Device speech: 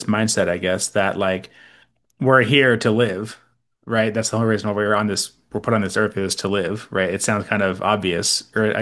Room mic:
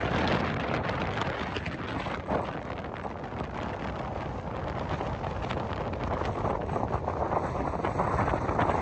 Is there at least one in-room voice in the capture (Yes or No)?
No